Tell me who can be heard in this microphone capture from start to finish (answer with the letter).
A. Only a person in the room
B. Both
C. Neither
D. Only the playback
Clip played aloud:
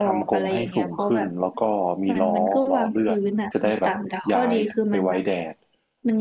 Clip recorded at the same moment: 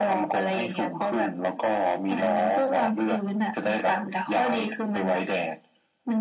D